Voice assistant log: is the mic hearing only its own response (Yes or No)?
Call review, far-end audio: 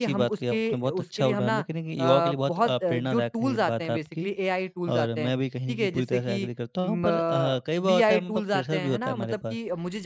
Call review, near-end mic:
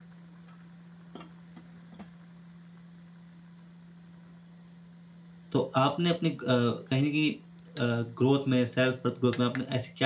No